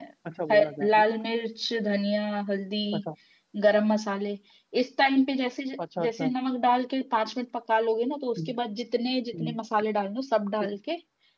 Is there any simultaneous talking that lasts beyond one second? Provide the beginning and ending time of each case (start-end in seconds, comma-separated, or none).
none